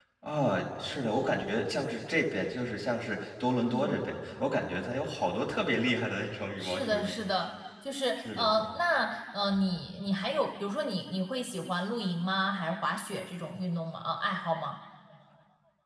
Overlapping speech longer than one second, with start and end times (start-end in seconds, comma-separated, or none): none